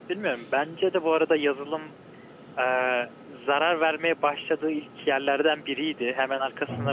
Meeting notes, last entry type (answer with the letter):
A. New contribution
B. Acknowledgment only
B